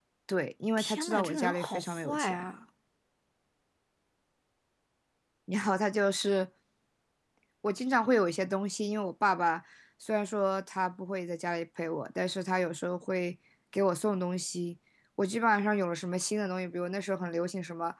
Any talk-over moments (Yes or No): Yes